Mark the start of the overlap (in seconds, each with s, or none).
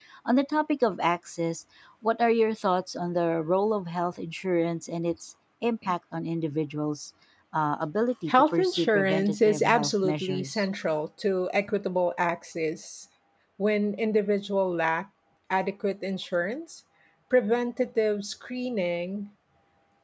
8.3 s